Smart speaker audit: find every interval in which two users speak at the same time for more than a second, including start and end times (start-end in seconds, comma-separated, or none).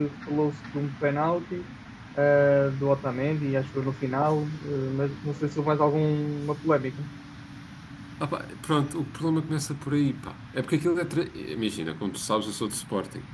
none